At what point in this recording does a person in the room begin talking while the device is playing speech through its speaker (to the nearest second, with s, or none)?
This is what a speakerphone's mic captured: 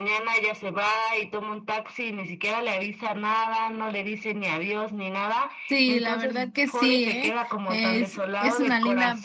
6 s